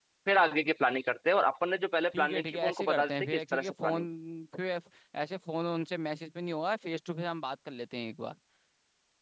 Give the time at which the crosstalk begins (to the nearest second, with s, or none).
2 s